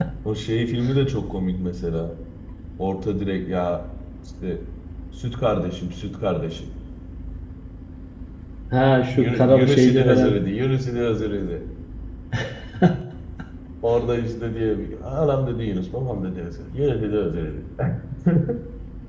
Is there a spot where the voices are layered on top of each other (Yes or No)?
Yes